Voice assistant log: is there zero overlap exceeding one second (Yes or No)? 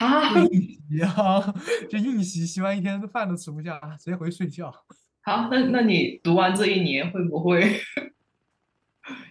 Yes